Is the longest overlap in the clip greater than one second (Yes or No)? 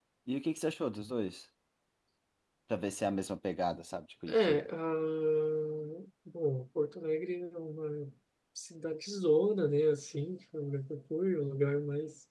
No